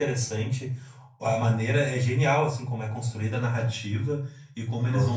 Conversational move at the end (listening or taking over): taking over